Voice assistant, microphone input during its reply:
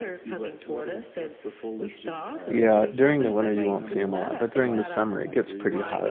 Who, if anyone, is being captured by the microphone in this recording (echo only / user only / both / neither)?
both